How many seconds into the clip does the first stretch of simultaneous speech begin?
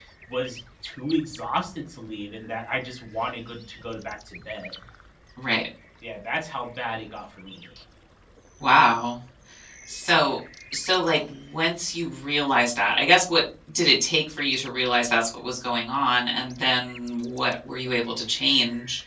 none

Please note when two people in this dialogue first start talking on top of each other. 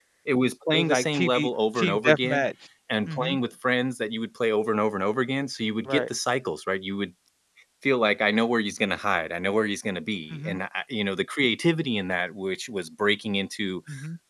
0.7 s

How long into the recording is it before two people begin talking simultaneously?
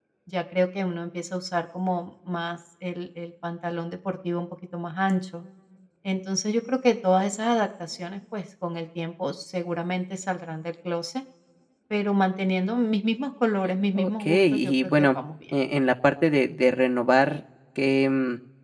13.9 s

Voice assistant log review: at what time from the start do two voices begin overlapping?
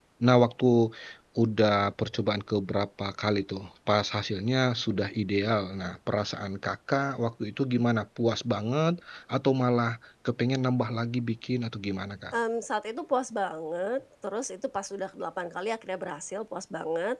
none

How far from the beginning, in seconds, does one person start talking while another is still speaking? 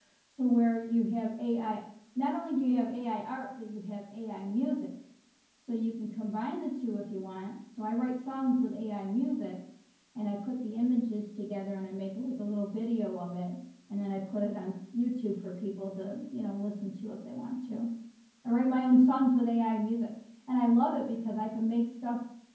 none

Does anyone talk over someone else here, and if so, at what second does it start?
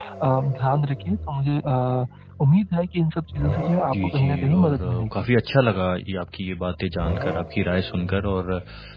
3.9 s

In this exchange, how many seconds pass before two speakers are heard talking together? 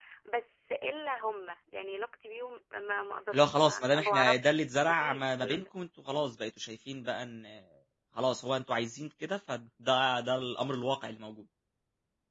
3.3 s

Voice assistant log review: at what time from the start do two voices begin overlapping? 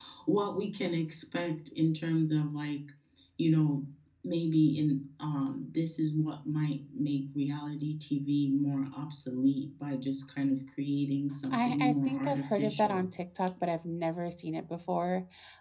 11.5 s

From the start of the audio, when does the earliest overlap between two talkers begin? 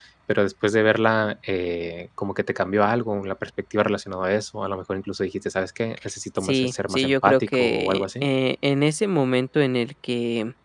6.4 s

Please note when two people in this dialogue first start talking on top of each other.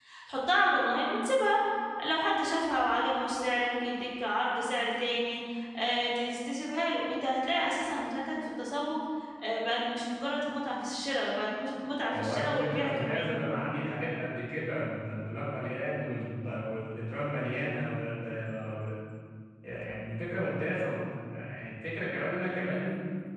12.1 s

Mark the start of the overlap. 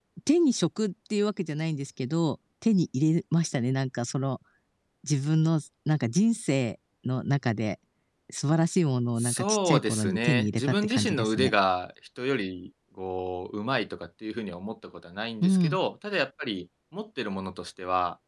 9.2 s

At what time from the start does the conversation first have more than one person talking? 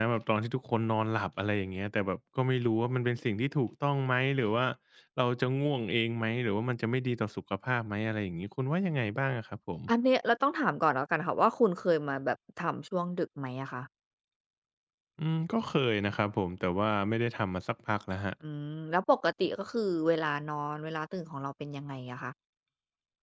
none

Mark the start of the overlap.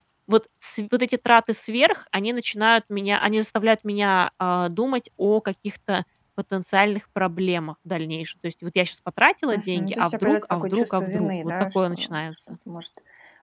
9.5 s

